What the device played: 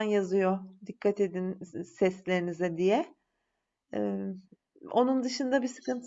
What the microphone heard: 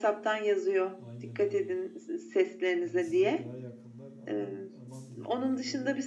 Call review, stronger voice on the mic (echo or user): echo